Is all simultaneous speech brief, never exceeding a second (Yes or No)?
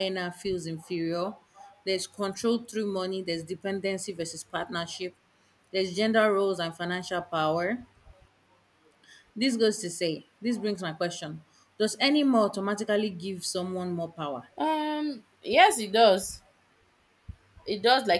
Yes